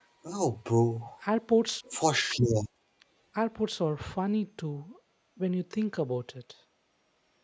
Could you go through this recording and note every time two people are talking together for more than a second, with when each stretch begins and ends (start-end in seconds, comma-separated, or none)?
none